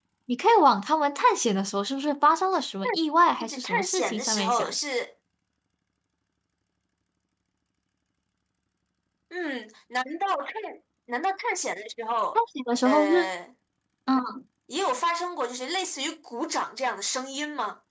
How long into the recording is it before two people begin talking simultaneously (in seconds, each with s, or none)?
3.4 s